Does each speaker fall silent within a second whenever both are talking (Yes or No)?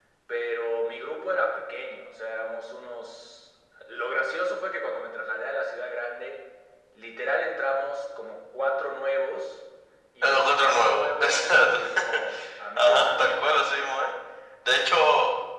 No